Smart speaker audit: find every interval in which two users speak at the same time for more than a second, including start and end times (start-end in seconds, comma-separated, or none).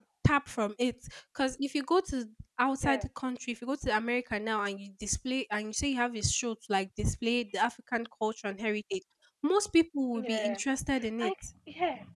none